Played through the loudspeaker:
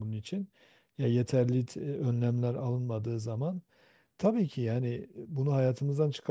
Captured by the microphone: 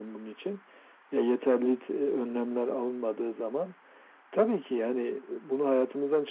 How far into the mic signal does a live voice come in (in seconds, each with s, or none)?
none